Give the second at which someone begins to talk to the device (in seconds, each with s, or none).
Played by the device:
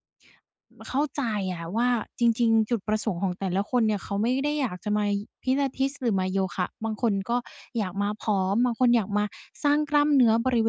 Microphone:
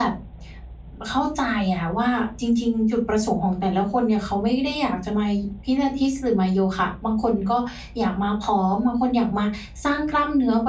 none